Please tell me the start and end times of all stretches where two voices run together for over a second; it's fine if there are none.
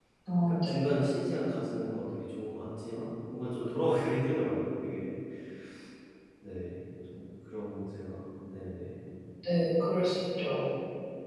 none

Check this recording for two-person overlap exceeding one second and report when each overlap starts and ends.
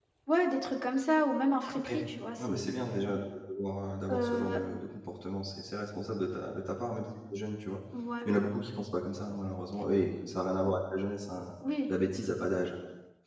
none

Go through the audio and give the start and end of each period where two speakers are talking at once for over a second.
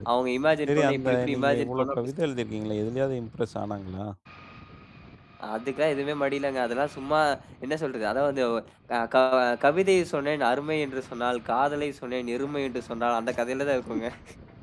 0.7-2.1

